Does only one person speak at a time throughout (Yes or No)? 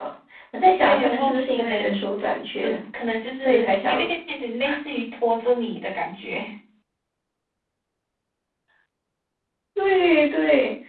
No